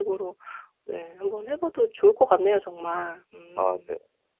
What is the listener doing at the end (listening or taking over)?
taking over